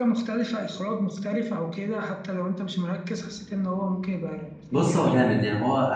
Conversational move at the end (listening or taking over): taking over